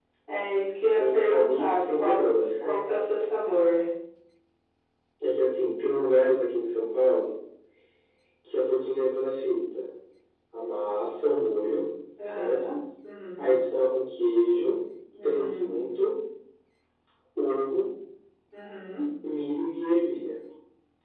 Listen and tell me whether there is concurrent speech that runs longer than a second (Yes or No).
Yes